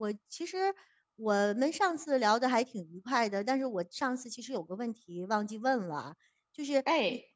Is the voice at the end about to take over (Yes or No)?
No